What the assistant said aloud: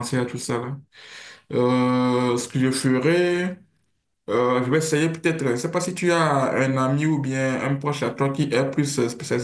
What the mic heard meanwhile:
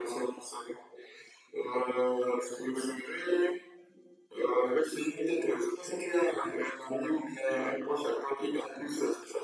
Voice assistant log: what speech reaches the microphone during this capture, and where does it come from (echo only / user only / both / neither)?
echo only